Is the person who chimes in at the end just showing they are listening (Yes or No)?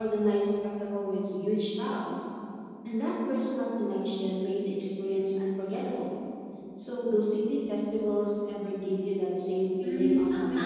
No